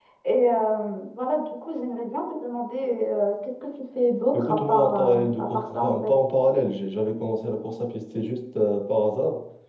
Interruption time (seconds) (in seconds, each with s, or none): 4.3 s